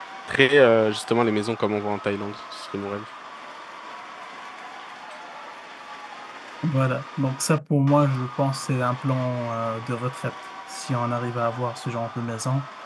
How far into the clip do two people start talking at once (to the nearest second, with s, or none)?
none